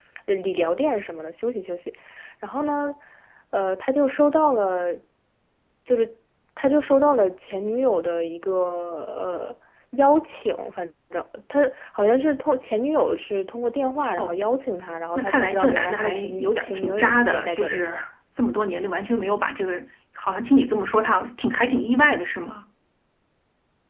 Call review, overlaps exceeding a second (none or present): present